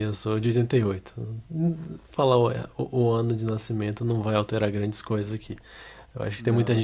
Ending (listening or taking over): listening